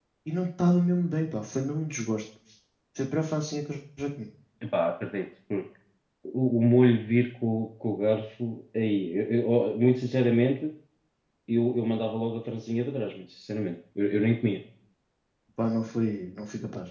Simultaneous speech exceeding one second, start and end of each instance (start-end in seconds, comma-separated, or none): none